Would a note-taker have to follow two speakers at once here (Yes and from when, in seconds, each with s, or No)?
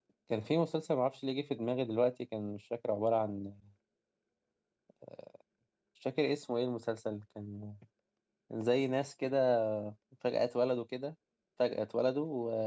No